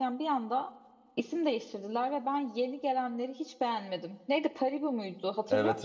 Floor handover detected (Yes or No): Yes